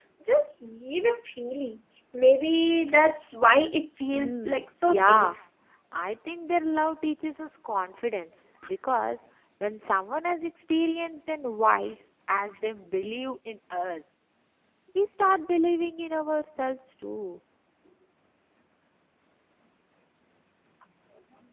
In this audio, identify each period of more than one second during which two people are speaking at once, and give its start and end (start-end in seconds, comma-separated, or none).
4.1-5.4